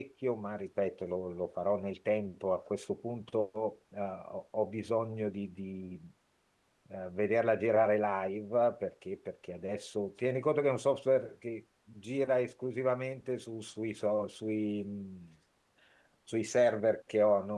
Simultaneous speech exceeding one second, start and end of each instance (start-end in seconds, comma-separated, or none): none